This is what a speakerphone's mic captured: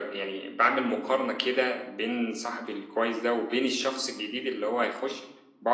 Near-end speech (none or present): none